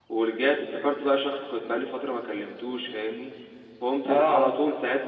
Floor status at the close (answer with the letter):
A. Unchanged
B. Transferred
A